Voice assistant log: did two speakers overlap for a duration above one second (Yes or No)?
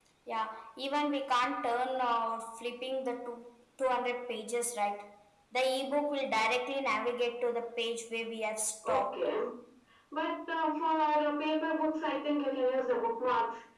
No